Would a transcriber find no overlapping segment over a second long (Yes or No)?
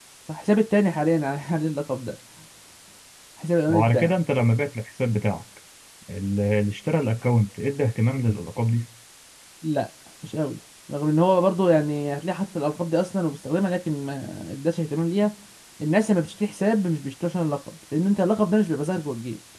Yes